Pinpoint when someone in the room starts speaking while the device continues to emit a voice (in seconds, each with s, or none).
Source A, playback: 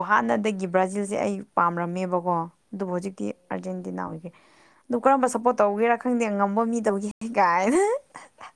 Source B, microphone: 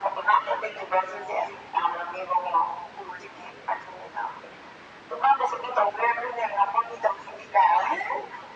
none